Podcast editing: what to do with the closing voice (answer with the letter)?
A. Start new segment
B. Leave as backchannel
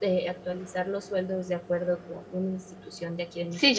A